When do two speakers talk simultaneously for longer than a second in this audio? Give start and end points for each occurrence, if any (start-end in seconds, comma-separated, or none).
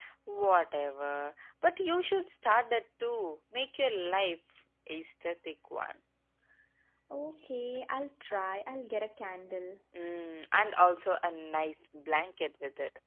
none